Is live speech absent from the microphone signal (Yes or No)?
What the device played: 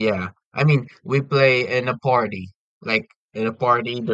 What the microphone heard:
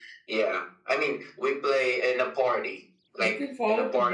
No